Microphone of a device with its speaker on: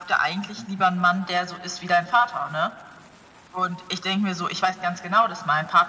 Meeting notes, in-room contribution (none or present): none